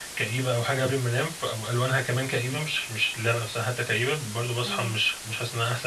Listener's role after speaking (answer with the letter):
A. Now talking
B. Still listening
B